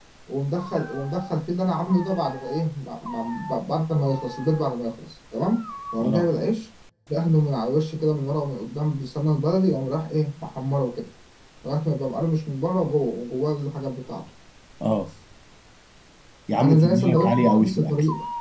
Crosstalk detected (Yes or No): Yes